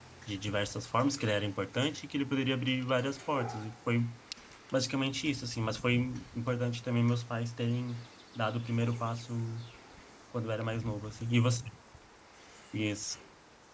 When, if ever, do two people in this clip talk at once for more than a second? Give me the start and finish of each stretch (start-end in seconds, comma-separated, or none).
none